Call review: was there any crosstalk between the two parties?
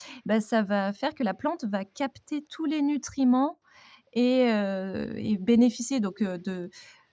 No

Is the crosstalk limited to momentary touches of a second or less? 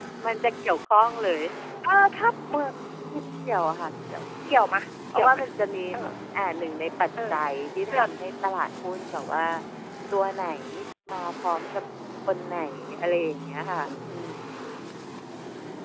Yes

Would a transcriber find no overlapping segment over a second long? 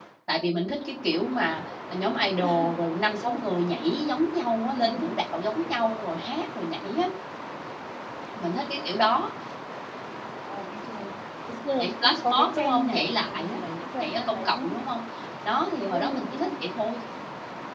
No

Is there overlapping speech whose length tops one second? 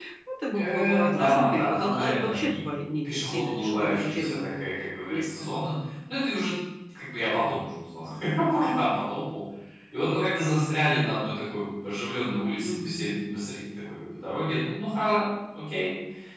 Yes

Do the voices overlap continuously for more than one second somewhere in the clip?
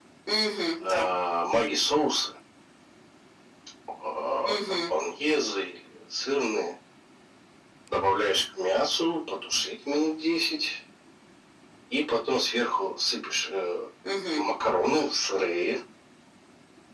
No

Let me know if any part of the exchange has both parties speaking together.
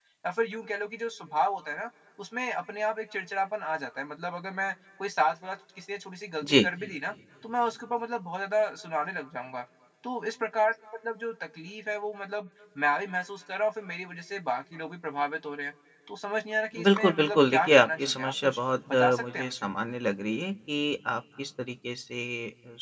Yes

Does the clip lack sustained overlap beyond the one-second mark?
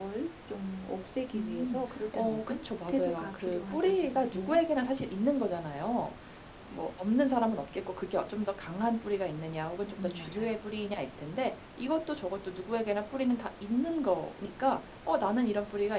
No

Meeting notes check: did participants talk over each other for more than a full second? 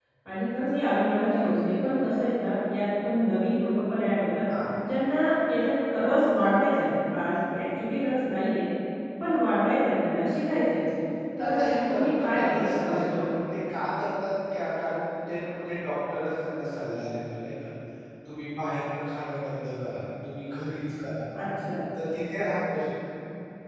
Yes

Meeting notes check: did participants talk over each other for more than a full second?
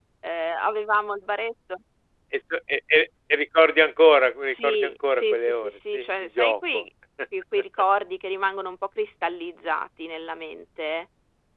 Yes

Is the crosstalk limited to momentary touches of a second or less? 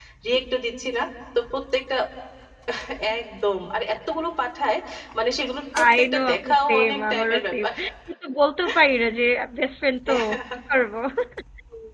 No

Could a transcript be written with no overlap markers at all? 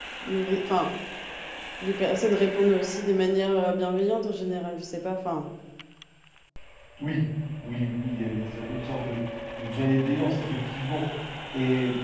Yes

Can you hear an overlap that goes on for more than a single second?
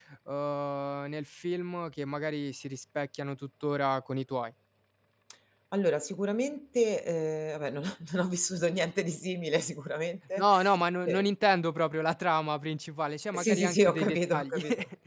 Yes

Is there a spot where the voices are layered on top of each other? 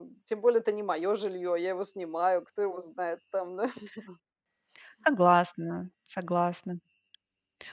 No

